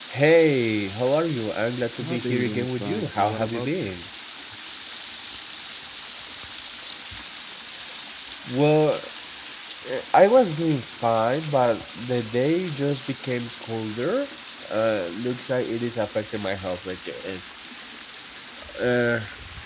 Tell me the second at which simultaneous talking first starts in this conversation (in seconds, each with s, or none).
2.0 s